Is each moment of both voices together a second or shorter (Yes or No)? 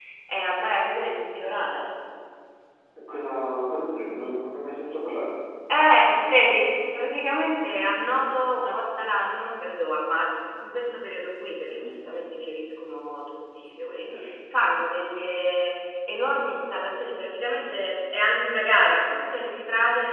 Yes